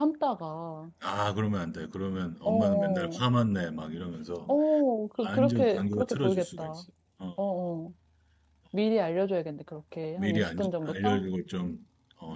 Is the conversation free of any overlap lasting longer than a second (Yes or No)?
No